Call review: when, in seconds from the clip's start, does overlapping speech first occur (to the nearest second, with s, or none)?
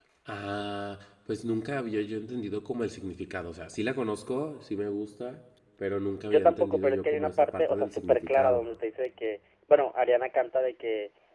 6 s